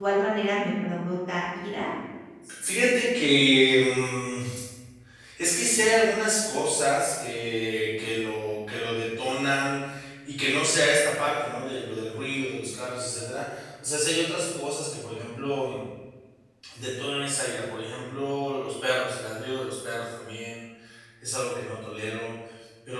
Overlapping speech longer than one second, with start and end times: none

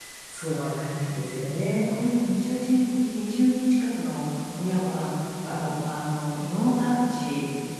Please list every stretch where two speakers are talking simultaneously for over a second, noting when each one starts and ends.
none

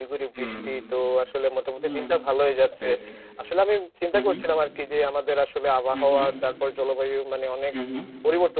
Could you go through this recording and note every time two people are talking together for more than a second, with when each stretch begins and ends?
none

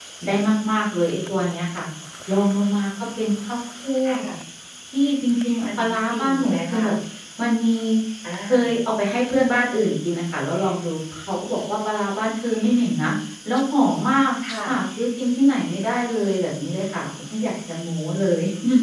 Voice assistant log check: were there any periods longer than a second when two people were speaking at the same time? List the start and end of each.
5.7-6.9

